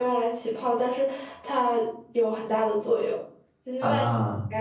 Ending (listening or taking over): listening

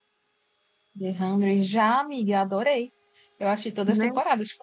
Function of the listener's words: listening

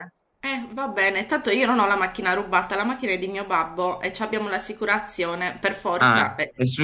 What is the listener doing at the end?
taking over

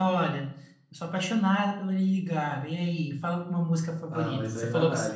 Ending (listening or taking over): taking over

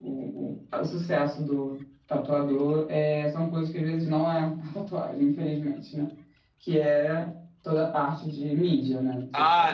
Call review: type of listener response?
taking over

